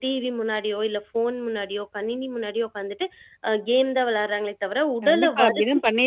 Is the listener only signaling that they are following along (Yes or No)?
No